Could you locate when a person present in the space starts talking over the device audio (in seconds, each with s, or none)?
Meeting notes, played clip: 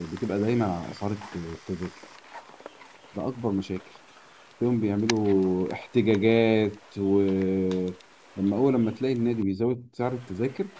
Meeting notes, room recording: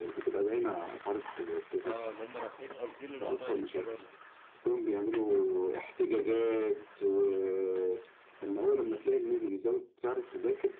1.8 s